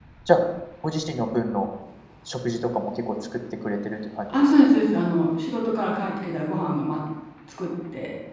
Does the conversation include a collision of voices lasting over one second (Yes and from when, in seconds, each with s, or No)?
No